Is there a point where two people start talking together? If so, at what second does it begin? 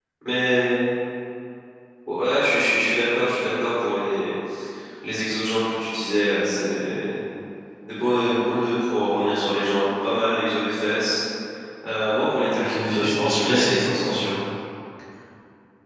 12.6 s

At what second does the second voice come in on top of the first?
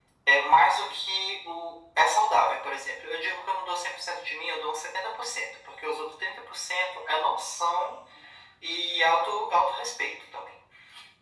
none

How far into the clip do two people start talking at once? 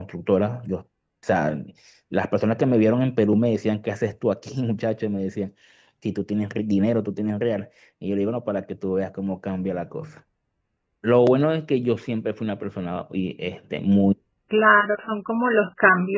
none

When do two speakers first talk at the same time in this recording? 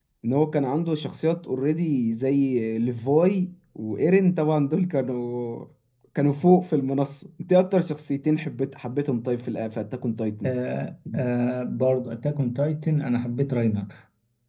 none

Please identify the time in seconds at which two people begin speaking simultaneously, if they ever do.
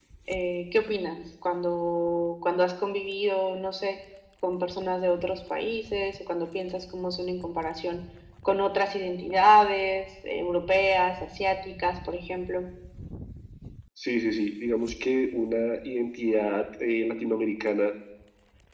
none

